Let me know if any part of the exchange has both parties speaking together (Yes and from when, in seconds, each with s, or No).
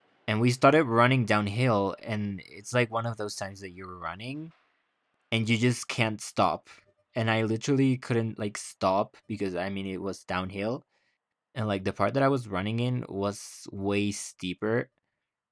No